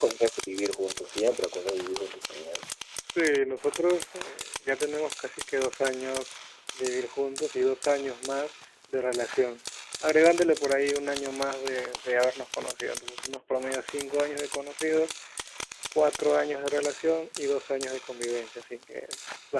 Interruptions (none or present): none